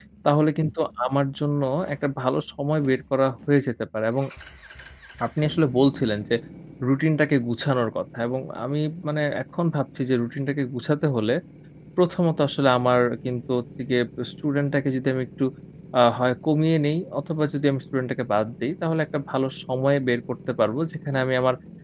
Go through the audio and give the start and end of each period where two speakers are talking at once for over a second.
none

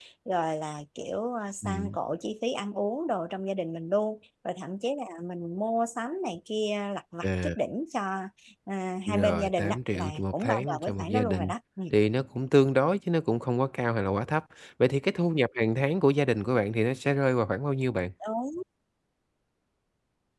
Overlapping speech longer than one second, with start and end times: 9.1-11.5

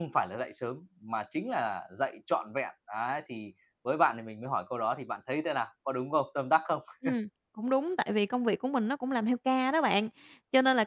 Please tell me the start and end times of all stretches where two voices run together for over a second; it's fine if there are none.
none

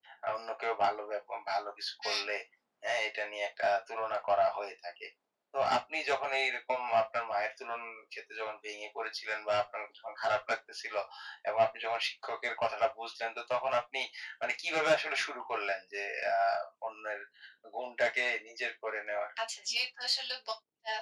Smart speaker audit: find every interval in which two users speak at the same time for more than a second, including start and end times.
none

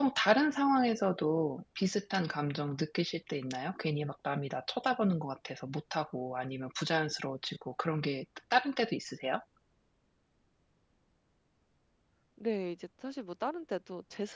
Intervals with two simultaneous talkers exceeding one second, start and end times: none

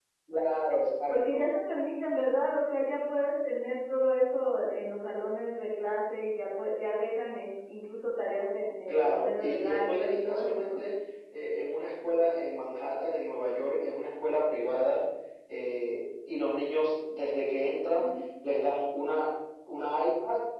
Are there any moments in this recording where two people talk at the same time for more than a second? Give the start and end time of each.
8.9-10.8

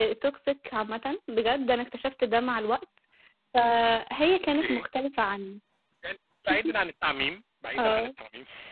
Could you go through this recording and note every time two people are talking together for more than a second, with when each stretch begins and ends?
none

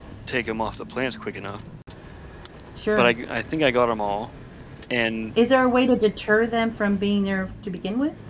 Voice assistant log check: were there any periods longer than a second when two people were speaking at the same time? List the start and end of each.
none

